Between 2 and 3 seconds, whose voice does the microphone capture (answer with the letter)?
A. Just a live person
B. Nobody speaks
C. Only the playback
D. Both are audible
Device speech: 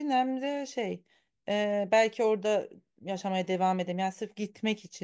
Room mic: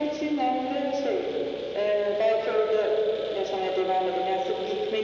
C